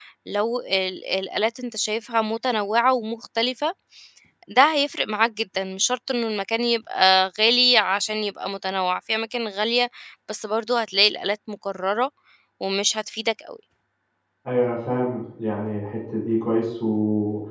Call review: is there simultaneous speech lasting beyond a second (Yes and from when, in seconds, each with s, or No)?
No